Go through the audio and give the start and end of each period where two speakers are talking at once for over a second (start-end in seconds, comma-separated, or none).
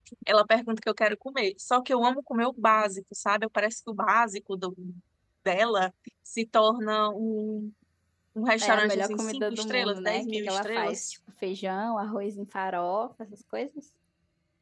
8.6-11.1